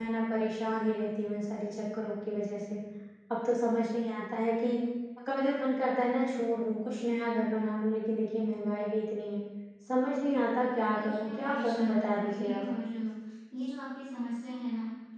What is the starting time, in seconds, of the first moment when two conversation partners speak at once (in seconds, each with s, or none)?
10.9 s